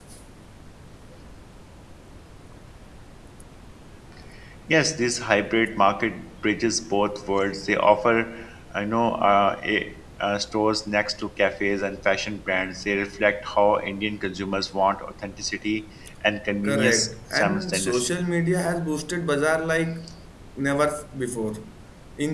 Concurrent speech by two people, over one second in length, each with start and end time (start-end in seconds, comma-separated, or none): 16.6-18.1